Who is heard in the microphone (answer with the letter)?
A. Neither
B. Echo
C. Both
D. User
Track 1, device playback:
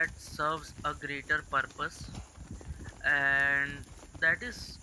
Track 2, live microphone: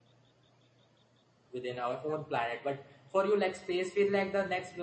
D